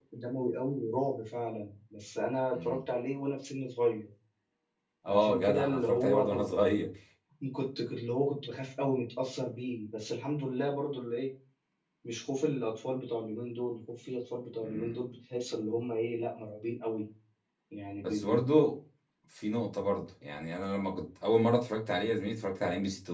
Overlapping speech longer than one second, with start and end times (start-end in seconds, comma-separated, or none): 5.1-6.4